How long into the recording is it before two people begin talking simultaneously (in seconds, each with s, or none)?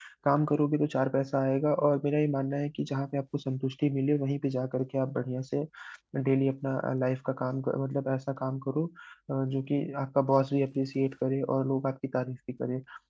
none